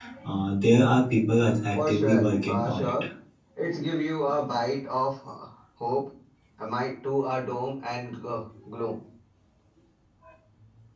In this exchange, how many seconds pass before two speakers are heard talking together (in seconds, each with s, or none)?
1.8 s